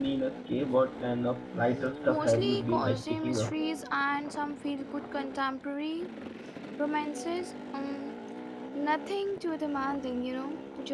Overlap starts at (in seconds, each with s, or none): 2.1 s